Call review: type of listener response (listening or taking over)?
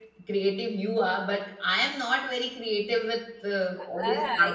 taking over